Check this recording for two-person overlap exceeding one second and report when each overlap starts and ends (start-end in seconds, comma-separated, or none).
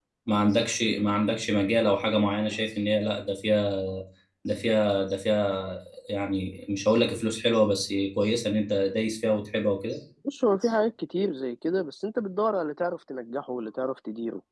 none